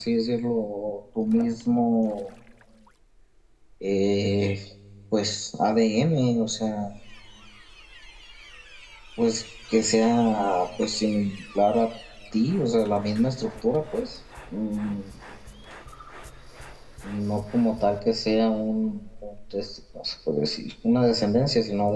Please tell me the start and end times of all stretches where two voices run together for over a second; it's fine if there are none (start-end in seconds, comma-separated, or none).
none